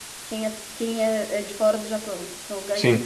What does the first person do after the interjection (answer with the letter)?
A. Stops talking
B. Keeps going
A